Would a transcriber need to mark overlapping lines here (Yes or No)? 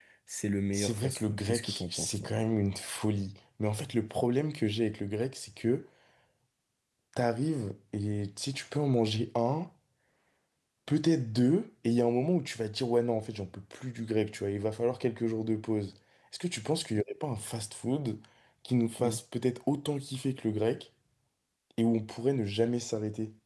Yes